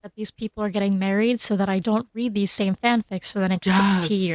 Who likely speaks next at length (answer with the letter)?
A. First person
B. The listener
B